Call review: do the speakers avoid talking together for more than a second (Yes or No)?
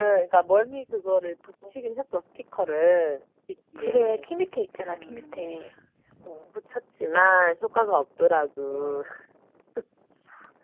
Yes